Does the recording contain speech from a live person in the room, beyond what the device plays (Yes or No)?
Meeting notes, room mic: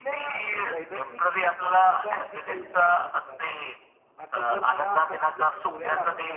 Yes